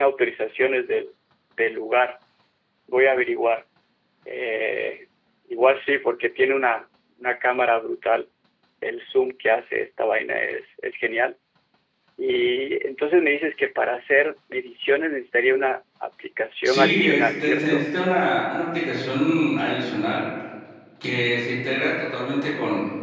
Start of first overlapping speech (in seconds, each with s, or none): 16.6 s